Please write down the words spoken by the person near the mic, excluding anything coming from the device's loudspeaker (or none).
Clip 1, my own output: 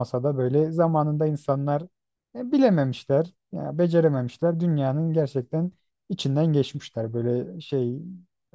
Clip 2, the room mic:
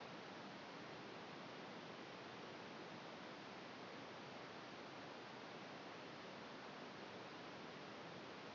none